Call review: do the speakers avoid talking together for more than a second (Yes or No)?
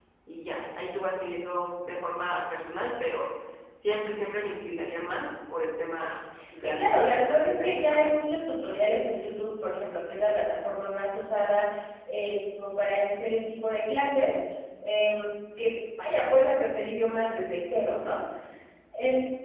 No